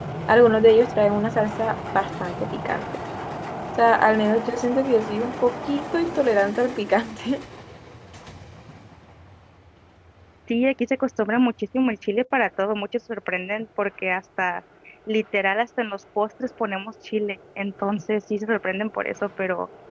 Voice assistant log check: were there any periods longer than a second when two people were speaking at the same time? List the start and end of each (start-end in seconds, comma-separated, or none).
none